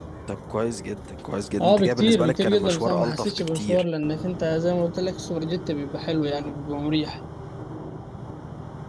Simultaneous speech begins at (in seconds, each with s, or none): 1.6 s